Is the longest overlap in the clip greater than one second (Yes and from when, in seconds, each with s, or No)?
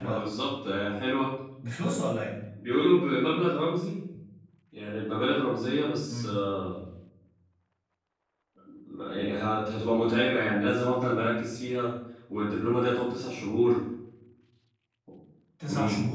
No